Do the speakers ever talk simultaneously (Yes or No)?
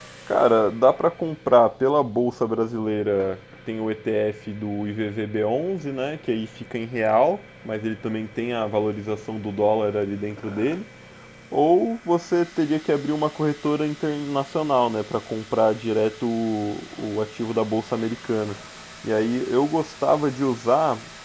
No